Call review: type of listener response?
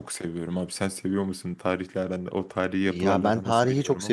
taking over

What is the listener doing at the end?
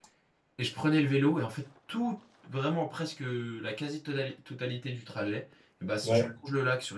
listening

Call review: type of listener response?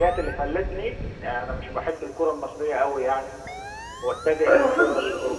taking over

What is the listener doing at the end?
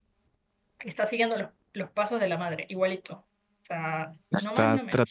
taking over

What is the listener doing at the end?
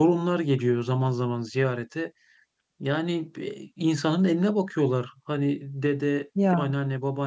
listening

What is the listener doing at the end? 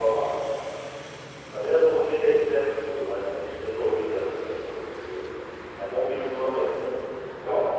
listening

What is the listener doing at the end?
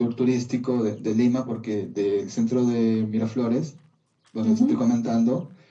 listening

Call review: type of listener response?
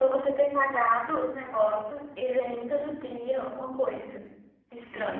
taking over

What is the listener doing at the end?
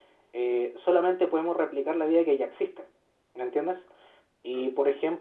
listening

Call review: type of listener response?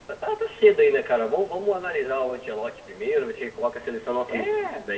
listening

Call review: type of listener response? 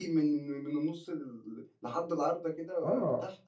taking over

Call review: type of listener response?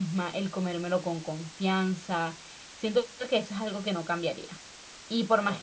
listening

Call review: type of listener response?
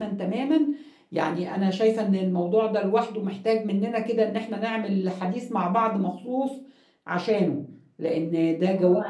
taking over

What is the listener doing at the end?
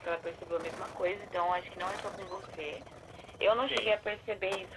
listening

